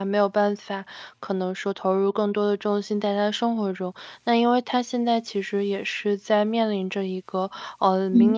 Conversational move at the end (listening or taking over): listening